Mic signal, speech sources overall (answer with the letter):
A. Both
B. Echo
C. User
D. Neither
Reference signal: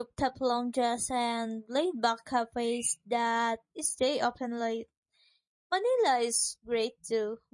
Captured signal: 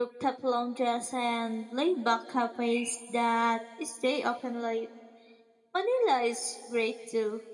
B